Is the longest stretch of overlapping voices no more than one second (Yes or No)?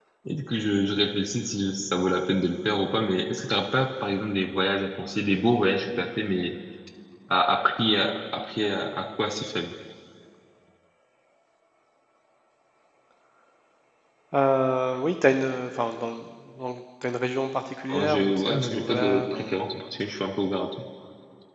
No